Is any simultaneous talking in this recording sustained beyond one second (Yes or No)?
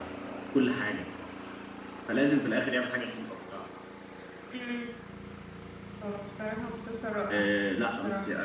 No